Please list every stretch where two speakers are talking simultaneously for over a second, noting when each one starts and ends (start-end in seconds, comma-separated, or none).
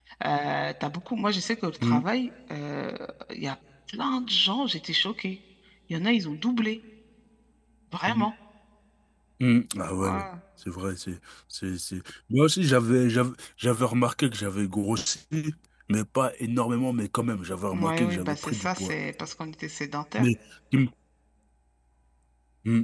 17.7-18.9